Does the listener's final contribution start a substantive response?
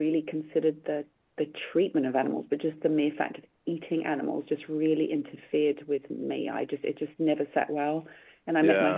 No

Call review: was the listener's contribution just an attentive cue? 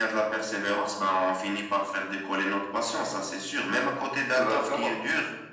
Yes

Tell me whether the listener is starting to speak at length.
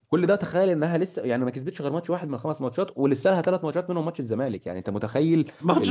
Yes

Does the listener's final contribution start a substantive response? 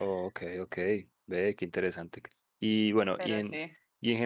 No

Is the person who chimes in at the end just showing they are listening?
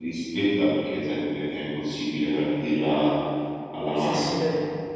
Yes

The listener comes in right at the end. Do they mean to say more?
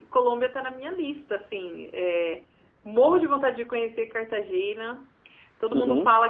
No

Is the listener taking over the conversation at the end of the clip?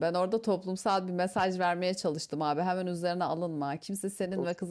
No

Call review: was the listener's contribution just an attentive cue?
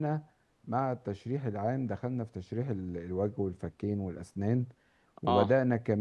Yes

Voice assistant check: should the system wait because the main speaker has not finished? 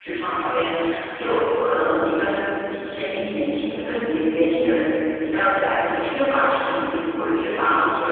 Yes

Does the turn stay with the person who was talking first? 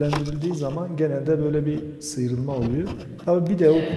Yes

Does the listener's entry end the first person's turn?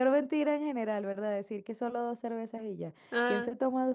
No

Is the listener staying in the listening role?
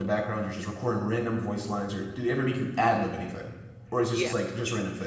No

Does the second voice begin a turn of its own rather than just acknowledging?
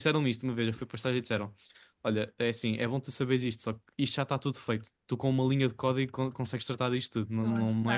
No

